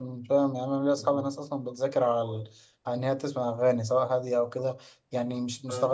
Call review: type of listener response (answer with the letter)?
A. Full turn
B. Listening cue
B